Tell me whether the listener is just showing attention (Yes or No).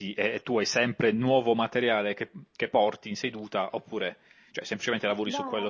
No